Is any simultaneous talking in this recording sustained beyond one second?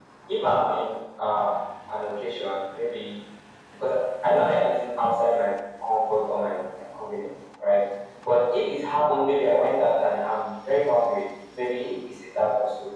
No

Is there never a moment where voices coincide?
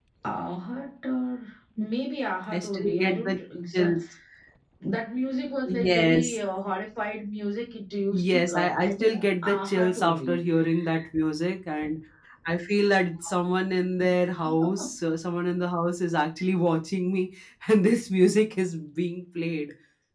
No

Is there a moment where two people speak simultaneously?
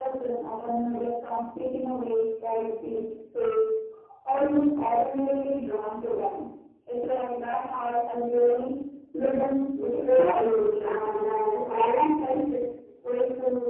Yes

